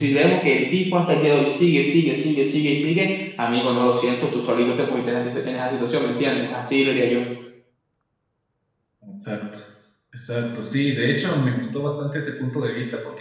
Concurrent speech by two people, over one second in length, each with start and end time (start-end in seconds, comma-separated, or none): none